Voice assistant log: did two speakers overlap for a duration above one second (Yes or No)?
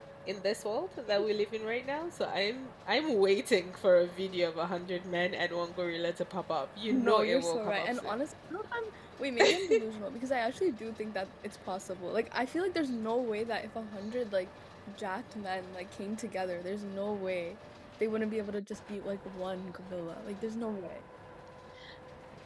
Yes